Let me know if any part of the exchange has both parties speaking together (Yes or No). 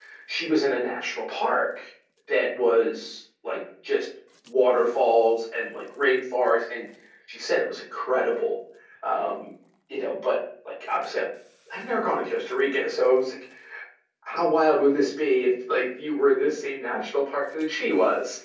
No